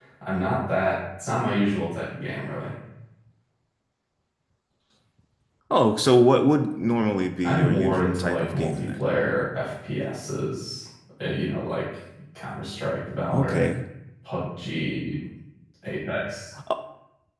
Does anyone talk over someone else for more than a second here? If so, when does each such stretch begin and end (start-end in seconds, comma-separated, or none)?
7.4-9.0